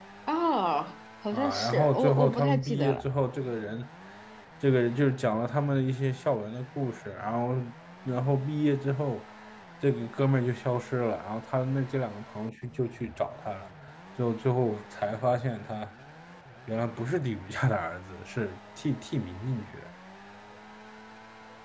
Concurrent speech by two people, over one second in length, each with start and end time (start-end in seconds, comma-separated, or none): 1.3-3.0